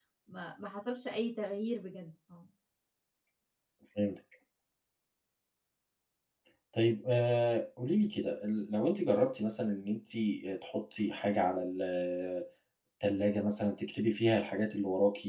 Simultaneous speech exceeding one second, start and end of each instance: none

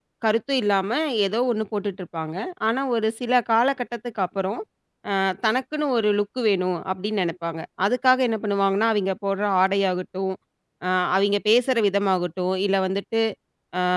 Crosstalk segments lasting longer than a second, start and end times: none

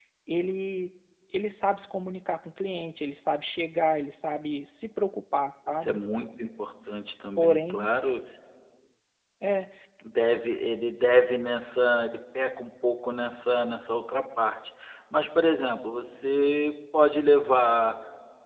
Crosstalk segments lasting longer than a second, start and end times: none

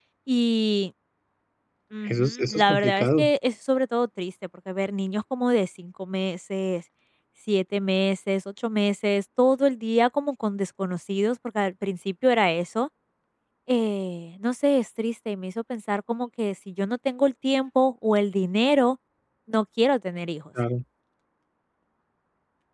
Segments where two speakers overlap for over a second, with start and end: 2.1-3.3

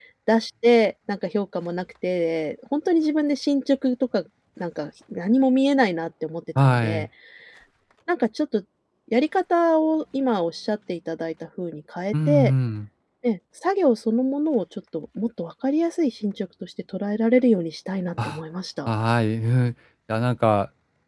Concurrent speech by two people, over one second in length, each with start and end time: none

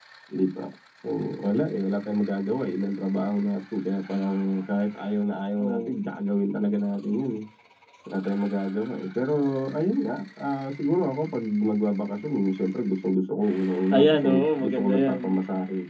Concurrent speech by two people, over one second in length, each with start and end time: 13.9-15.2

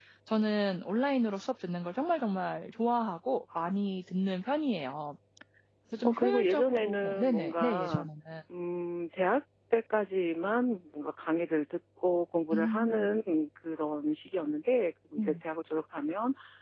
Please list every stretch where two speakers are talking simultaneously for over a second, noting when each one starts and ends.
6.0-8.0

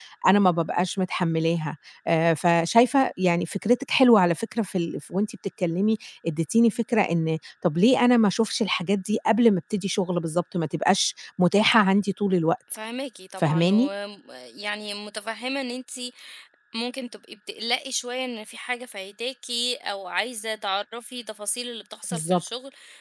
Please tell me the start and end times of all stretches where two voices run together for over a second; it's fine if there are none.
none

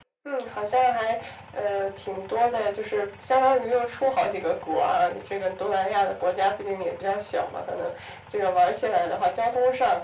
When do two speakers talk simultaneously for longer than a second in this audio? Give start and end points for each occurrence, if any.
none

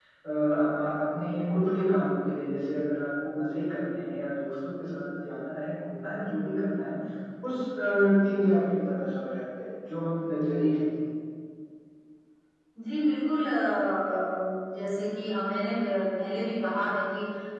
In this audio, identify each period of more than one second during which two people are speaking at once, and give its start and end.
none

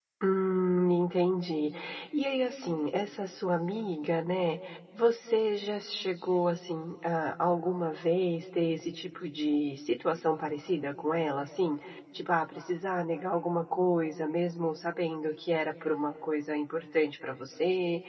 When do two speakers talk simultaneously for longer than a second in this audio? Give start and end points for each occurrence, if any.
none

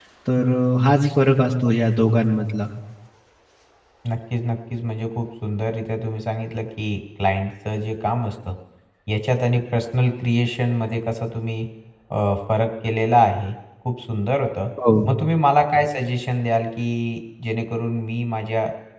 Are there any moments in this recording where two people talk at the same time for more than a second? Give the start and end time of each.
none

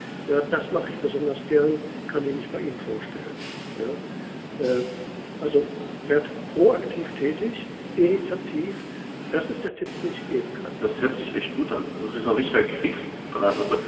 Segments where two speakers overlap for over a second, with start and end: none

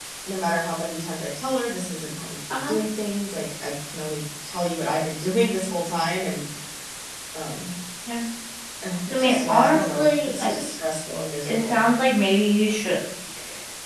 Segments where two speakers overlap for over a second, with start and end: 9.1-10.5

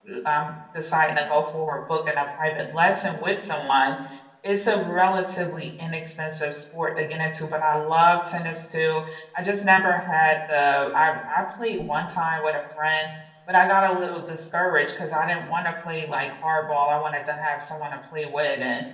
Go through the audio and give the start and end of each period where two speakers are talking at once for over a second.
none

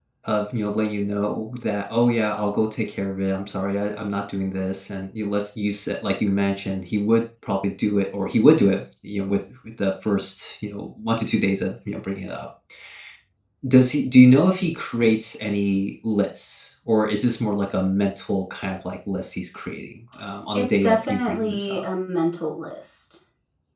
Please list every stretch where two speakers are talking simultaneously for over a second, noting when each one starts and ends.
20.5-21.8

